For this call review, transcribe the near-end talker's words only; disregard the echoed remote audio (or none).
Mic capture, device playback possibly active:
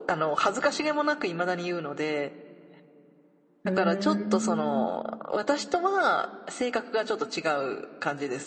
ーん。